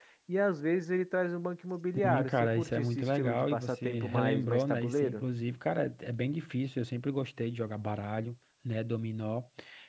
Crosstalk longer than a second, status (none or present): present